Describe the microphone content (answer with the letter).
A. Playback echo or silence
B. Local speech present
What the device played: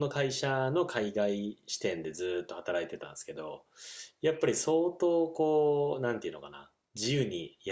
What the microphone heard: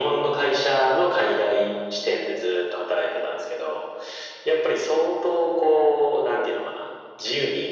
A